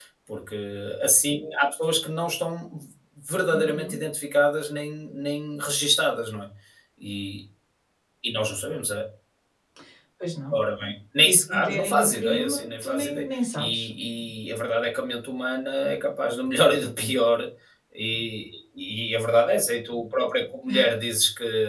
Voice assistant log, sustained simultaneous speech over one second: present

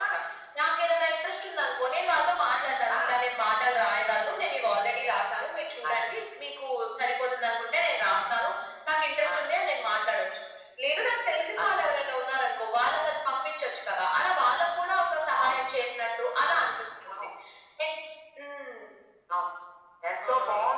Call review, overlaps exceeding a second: none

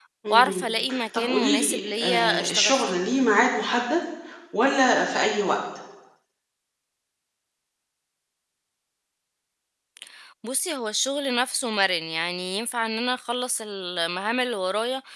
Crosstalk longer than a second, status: present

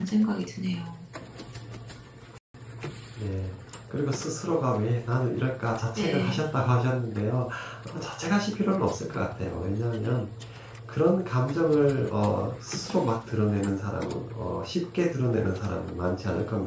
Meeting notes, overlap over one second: none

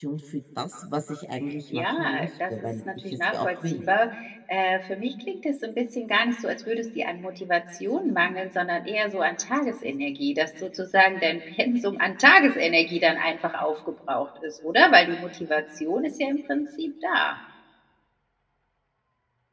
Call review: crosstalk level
present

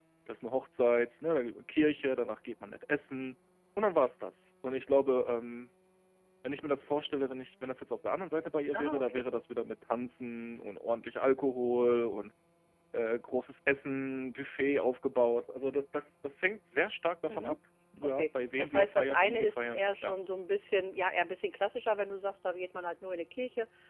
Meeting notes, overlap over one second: present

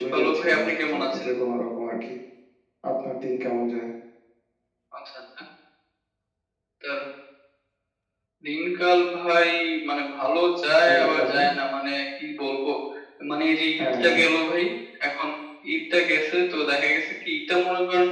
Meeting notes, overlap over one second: present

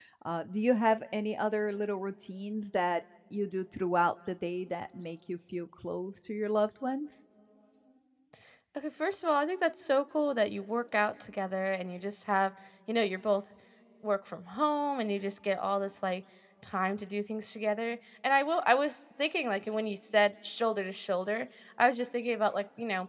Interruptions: none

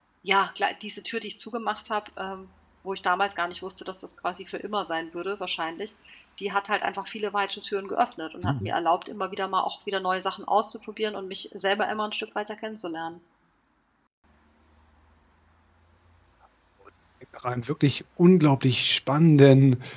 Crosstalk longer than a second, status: none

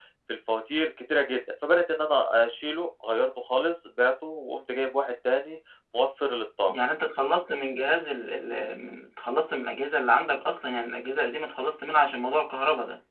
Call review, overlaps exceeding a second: none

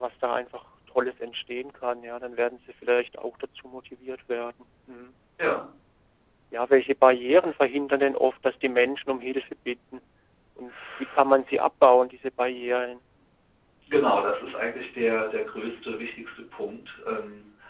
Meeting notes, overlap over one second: none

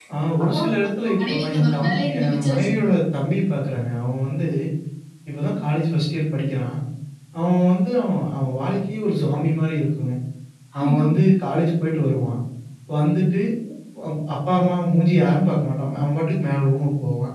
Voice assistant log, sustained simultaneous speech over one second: present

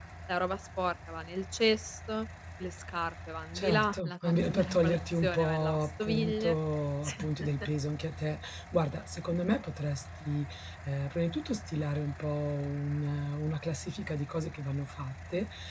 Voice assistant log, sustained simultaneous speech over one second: present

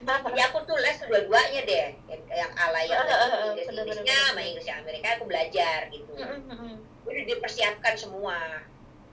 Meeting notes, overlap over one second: present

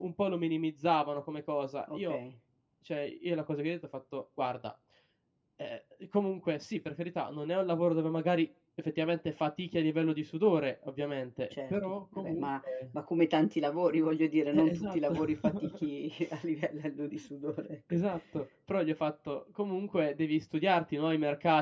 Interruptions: present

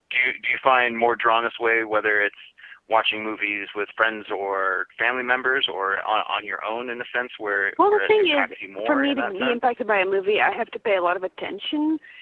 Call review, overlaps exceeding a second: present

